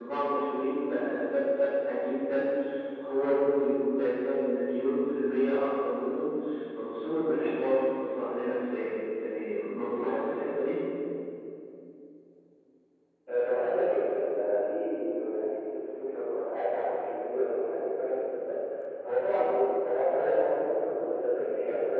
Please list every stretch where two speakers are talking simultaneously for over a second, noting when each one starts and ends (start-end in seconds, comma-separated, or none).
none